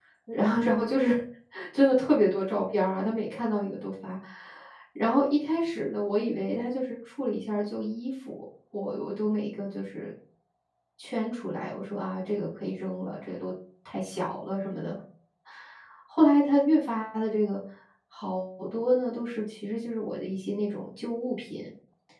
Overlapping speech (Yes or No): No